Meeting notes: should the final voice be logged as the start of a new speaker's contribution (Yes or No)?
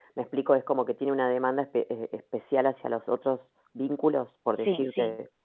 Yes